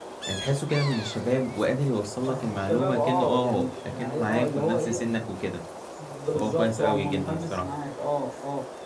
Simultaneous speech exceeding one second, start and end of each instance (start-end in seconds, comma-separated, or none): 2.3-5.0, 6.4-7.7